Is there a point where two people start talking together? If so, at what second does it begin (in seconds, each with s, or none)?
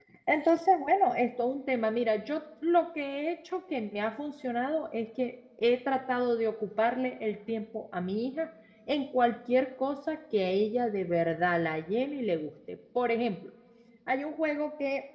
none